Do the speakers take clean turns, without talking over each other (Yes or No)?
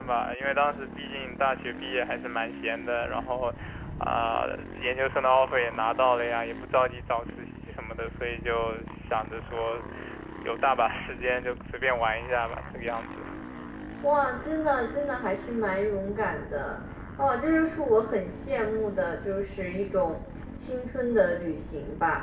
Yes